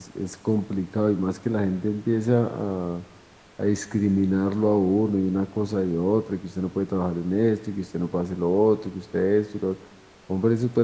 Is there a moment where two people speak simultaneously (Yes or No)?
No